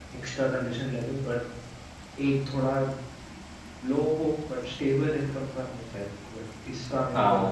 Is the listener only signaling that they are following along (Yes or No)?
No